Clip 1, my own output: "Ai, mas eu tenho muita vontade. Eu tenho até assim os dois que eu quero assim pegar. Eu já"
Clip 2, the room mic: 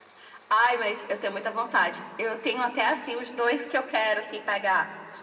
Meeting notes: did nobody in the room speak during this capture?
Yes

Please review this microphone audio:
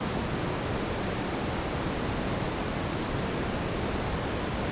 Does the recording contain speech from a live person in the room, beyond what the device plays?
No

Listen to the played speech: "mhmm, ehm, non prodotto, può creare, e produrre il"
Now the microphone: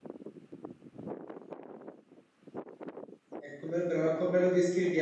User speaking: Yes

